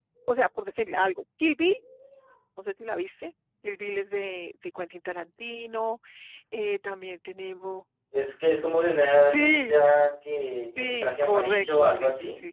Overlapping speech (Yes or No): Yes